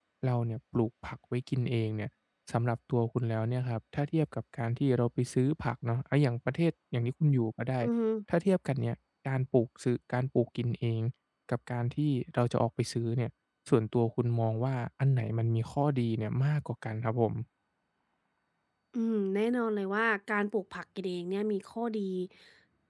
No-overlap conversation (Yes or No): Yes